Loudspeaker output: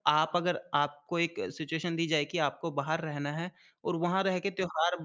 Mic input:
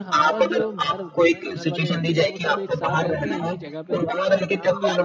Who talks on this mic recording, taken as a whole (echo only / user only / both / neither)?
both